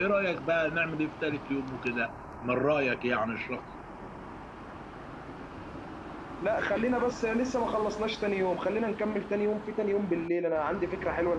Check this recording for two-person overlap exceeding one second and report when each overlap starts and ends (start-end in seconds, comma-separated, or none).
none